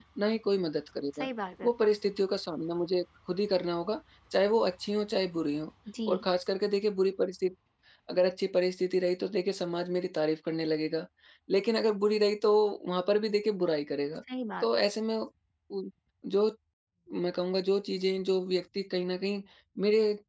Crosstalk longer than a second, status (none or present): none